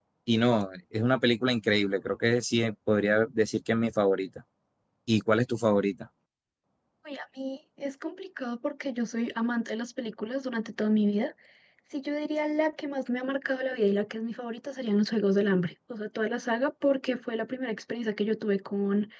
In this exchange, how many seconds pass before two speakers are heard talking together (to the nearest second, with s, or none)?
none